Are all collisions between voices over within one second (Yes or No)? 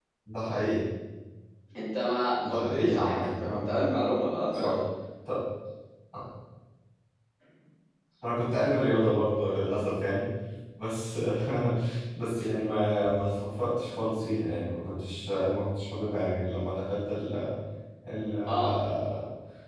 No